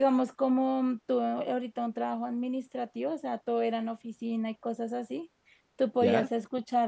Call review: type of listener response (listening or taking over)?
listening